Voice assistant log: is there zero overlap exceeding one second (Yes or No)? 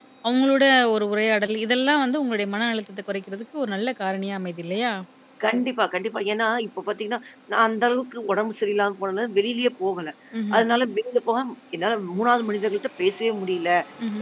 Yes